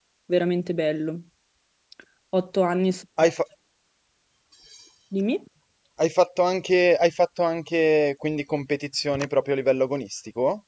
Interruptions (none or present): none